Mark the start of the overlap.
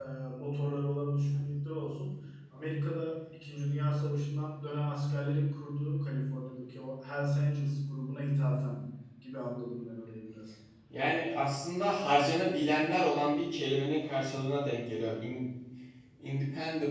none

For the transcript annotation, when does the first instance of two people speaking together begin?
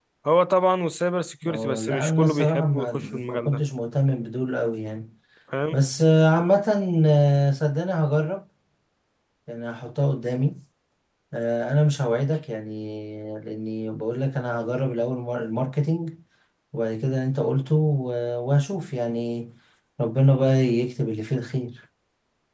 1.4 s

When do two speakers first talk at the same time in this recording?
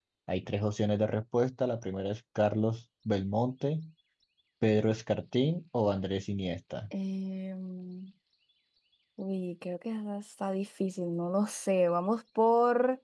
none

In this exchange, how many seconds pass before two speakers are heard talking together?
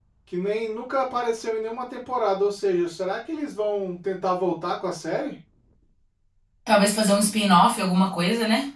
none

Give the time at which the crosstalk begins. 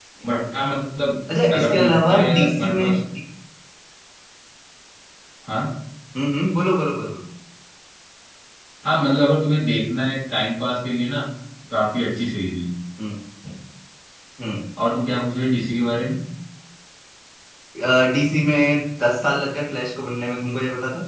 1.3 s

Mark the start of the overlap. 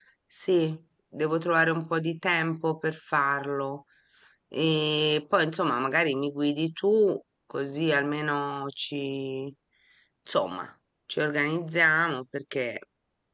none

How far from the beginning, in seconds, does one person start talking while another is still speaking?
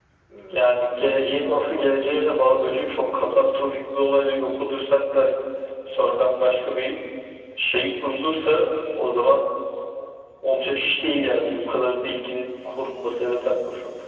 0.5 s

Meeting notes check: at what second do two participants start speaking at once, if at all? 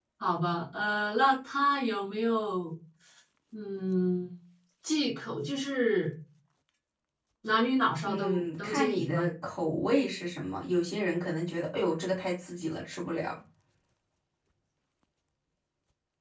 8.0 s

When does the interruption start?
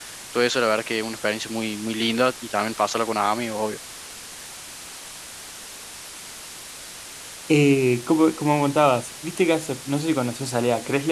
none

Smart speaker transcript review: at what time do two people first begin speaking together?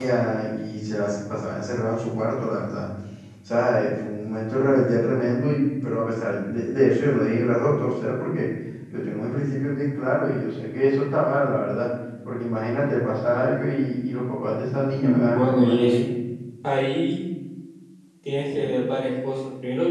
14.6 s

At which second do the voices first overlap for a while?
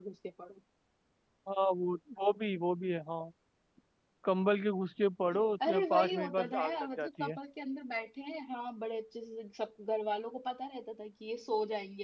5.7 s

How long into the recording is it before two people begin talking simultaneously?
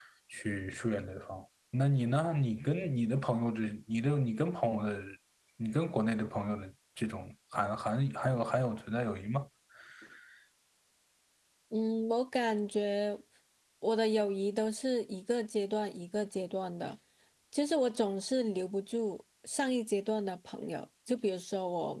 none

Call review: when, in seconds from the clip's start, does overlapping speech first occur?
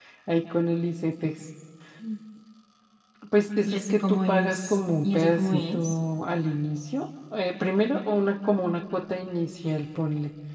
3.6 s

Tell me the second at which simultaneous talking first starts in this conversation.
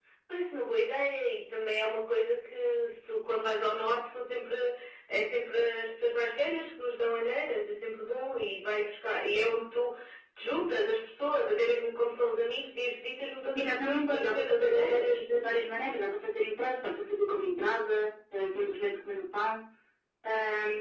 13.5 s

